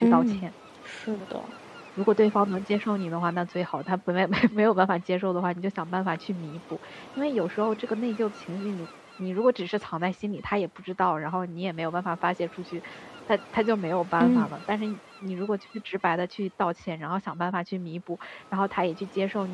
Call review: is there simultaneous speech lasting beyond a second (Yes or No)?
No